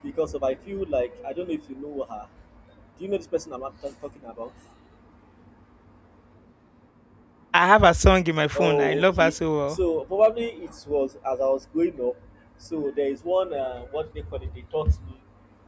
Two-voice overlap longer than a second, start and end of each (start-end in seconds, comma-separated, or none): 8.6-9.8